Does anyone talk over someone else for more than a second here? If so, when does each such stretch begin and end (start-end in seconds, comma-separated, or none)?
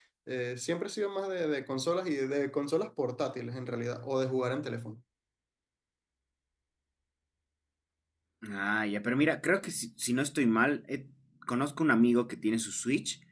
none